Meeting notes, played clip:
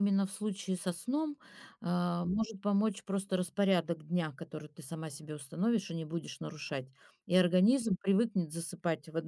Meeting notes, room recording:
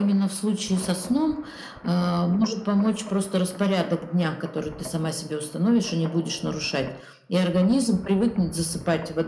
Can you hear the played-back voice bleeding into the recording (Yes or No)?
Yes